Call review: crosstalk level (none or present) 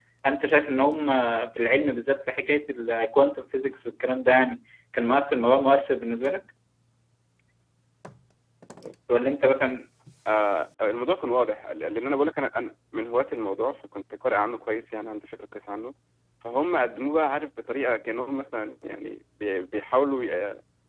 none